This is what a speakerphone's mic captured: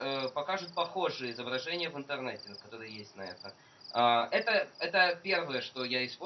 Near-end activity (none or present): present